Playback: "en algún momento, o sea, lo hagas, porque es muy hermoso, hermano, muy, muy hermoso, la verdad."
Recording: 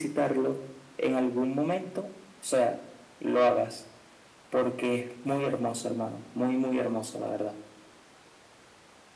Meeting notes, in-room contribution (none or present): none